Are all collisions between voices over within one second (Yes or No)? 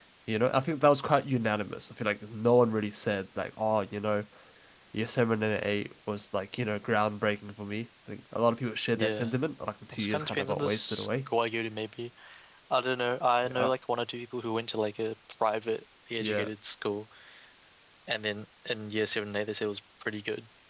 No